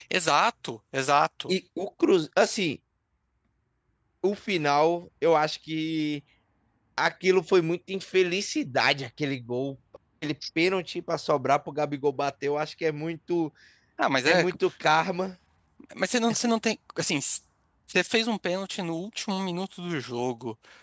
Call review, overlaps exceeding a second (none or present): none